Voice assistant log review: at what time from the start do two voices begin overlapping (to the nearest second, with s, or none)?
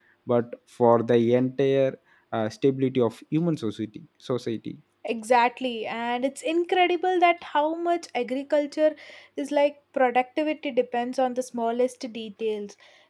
none